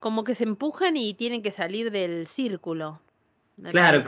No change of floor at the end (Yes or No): No